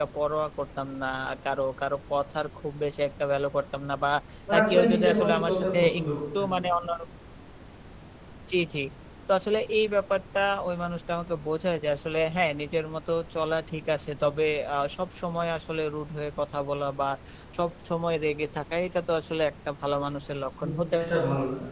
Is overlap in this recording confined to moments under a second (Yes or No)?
No